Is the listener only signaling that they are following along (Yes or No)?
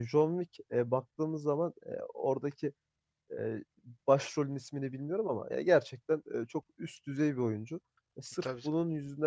Yes